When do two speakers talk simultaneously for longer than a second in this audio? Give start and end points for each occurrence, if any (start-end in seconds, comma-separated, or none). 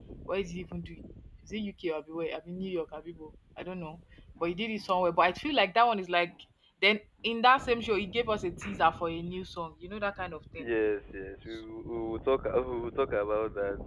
none